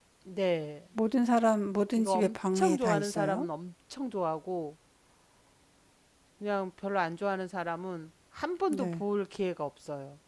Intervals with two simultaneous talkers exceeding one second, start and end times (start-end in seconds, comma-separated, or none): 2.0-3.5